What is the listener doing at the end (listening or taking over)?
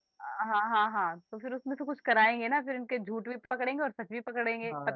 taking over